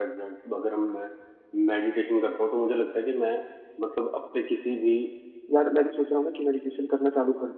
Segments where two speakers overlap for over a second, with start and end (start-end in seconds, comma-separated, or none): none